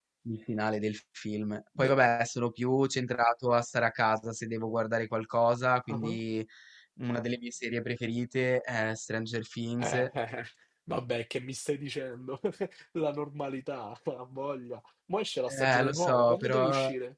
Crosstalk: present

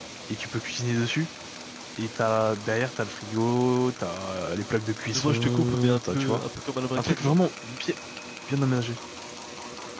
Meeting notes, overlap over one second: present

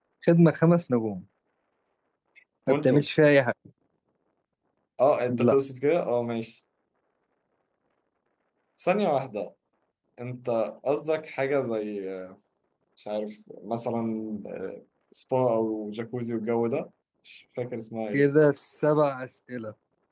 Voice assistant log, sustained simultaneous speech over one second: none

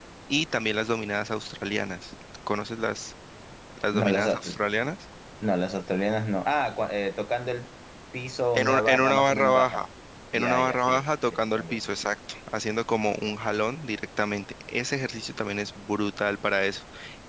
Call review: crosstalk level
present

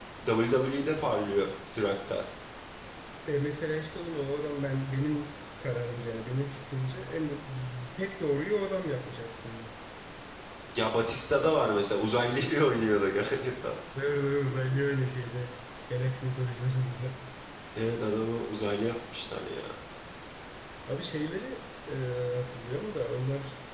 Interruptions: none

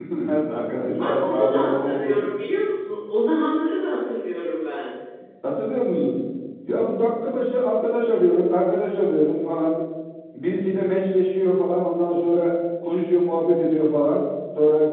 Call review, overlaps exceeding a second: present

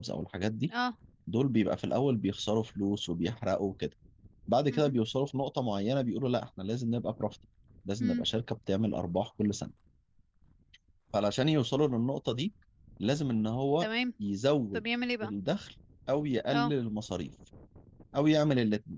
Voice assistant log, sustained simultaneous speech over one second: none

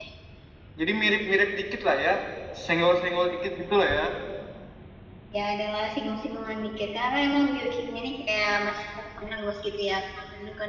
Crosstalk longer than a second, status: none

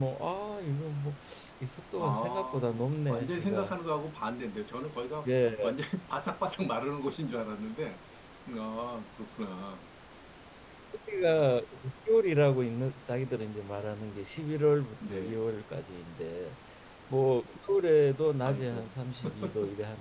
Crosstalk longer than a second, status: present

